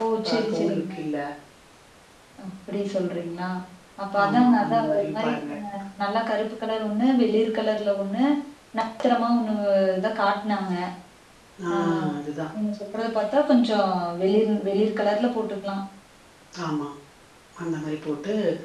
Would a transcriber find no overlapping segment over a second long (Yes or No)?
No